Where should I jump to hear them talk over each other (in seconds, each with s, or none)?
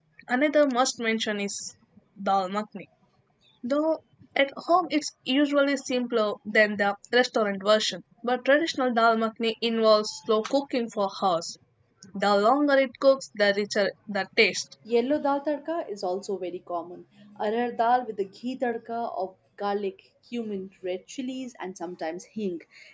none